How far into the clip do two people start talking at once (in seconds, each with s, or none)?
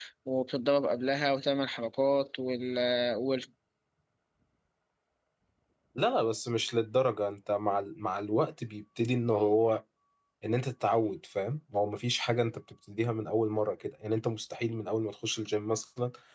none